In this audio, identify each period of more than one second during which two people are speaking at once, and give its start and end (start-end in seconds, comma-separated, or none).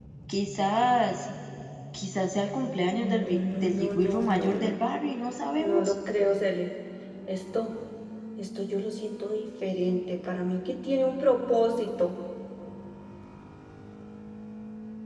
2.9-4.8